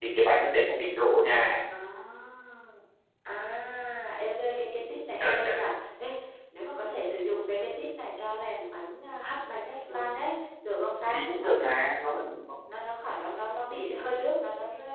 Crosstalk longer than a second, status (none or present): none